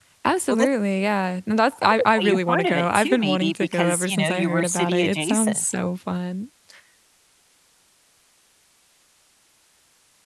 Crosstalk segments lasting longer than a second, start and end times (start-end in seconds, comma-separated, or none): 1.8-5.6